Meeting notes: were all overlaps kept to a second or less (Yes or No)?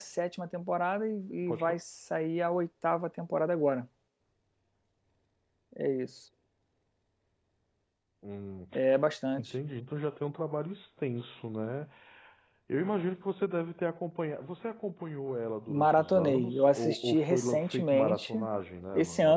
No